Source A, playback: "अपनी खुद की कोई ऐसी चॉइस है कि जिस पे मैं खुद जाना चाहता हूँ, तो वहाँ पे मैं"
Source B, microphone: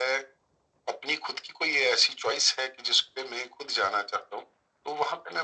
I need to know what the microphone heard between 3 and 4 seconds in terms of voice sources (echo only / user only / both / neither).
echo only